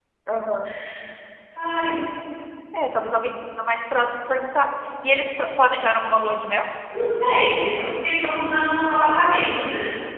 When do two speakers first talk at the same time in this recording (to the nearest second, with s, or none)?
none